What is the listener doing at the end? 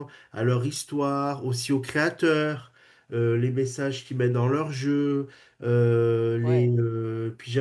listening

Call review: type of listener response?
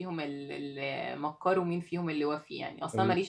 listening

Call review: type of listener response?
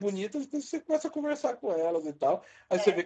listening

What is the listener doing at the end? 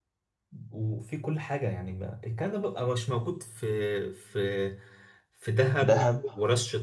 listening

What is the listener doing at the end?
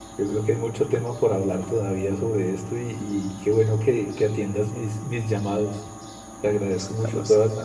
listening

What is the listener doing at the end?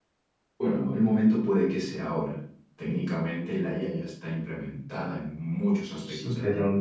taking over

